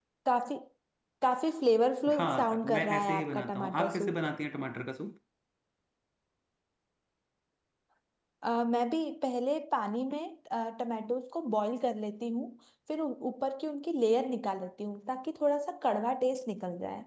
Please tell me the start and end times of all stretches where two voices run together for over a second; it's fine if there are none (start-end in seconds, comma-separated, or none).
2.1-4.3